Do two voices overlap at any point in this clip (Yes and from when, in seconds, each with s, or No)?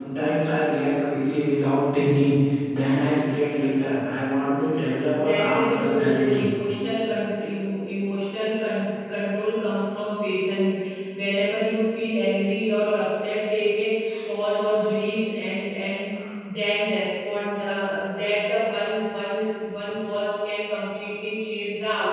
Yes, from 5.1 s